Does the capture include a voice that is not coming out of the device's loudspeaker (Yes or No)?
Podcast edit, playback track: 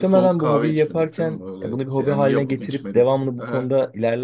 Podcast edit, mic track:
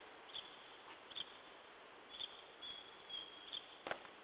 No